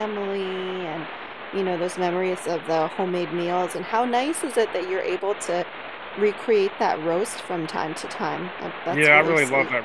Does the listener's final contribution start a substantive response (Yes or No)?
Yes